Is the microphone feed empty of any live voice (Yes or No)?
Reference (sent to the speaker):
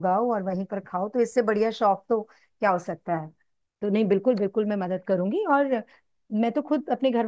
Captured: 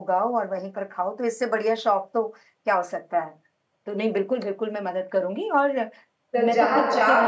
No